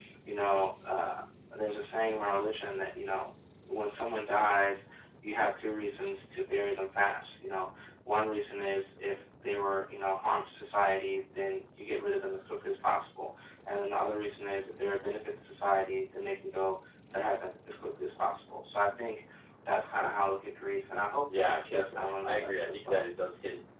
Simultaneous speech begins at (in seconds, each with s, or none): 21.3 s